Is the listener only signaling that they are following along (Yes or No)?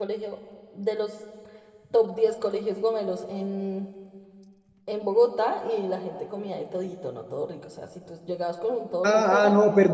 No